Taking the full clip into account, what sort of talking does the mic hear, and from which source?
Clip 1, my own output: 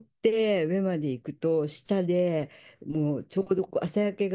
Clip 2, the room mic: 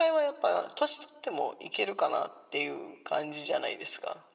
user only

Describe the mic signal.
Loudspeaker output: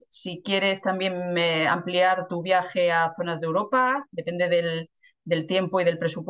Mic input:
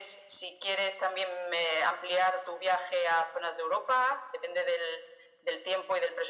echo only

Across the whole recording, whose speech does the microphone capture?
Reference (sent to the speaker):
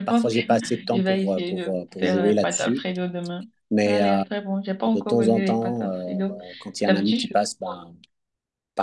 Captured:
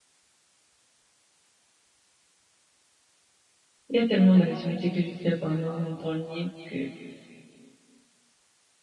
user only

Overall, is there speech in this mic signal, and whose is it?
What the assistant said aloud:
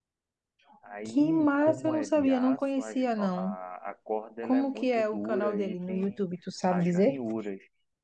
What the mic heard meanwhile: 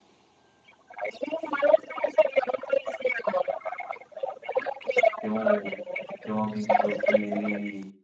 both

